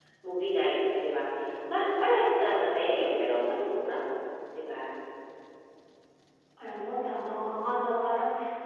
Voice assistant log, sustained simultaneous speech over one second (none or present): none